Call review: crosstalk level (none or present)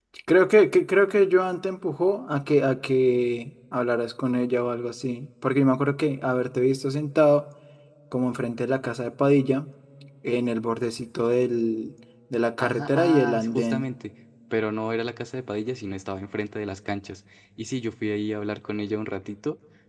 present